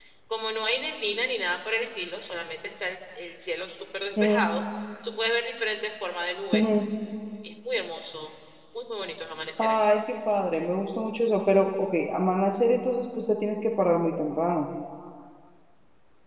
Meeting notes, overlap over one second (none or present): none